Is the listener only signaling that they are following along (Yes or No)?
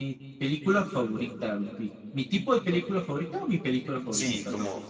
No